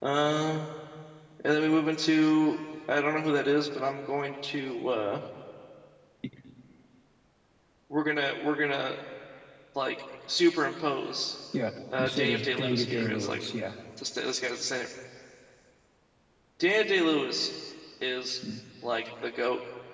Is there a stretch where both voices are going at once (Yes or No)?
Yes